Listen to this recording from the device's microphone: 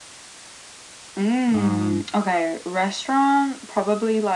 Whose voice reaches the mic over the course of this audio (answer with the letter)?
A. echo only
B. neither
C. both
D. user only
C